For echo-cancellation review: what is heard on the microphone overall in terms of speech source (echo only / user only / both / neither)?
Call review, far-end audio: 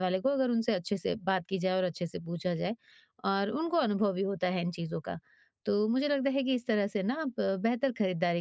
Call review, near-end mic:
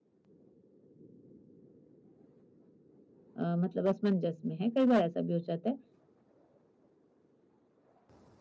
user only